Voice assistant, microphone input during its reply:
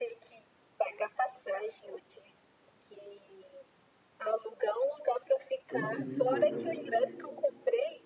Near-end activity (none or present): present